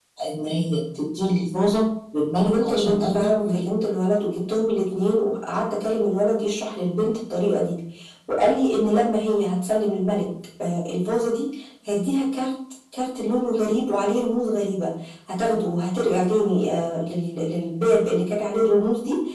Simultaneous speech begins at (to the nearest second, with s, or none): 2 s